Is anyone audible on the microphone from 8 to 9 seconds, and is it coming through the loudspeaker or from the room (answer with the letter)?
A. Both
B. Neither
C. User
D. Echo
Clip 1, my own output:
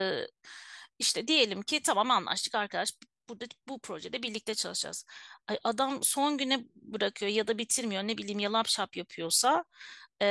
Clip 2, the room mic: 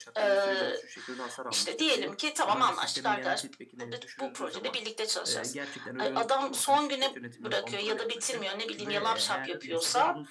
A